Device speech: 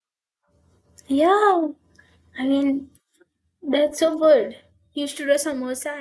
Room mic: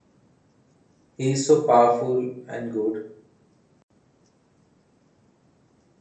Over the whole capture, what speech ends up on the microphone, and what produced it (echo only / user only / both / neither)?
user only